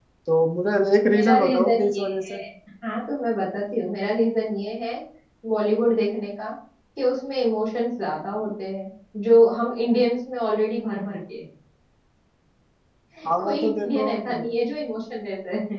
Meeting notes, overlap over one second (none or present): present